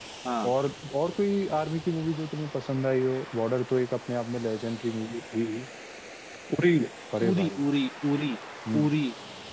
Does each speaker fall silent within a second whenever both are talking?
Yes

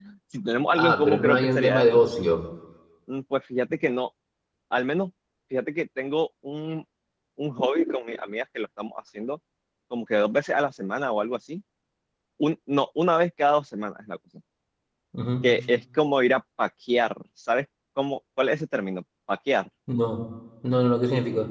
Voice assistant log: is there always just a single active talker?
No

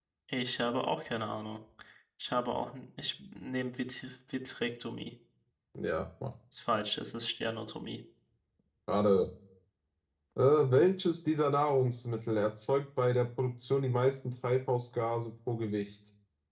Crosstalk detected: No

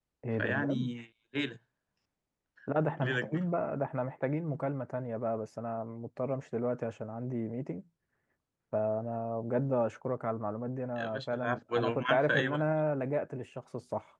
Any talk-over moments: Yes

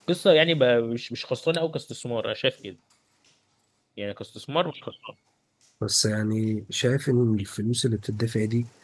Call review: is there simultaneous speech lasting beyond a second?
No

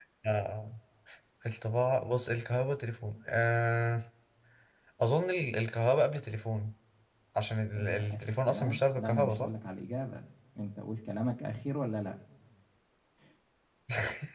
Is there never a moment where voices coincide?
No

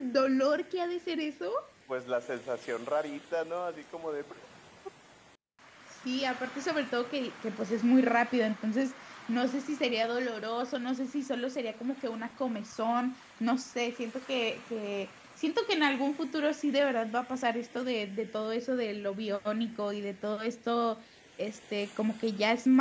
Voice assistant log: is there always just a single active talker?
Yes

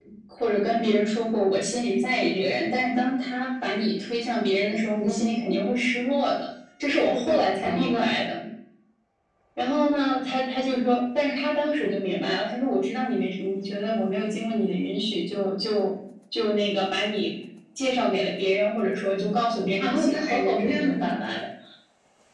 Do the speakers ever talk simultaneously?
Yes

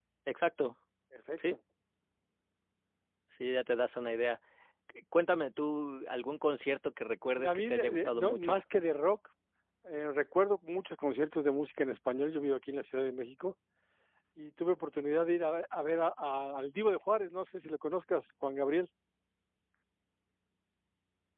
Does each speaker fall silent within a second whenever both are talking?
No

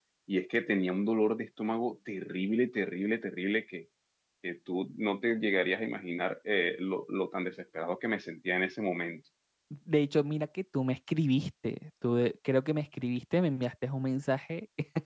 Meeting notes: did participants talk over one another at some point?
No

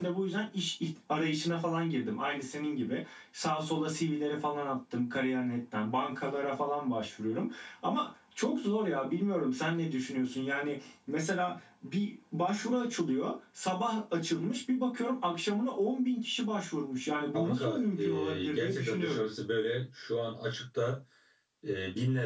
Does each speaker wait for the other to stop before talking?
No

